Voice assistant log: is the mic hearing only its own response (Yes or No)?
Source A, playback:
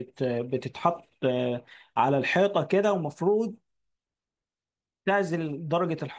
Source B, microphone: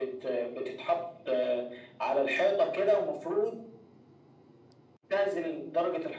Yes